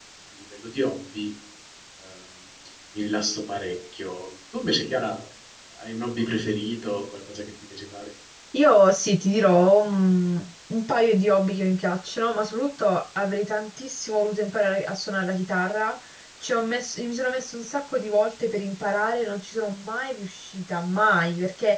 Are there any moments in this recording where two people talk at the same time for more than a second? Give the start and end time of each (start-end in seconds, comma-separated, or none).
none